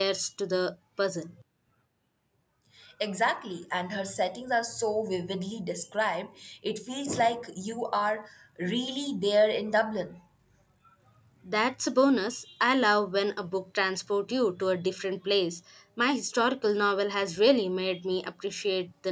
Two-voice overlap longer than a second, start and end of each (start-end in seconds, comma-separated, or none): none